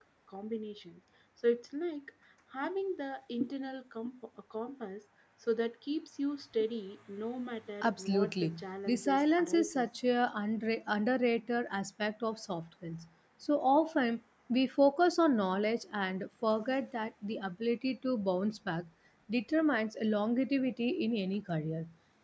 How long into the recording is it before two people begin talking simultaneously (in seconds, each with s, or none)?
7.8 s